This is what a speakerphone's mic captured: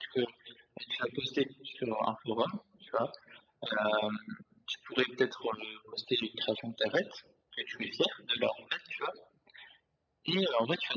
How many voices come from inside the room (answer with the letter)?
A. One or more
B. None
B